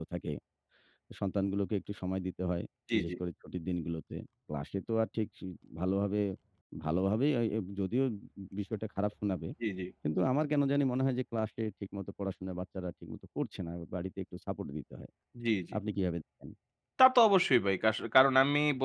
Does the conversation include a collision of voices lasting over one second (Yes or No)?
No